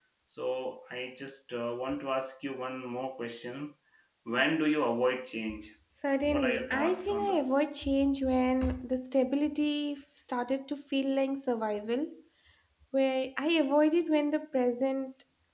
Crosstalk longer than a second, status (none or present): present